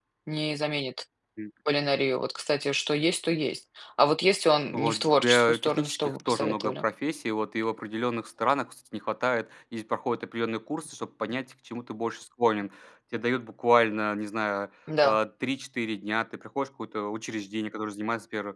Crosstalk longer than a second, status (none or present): present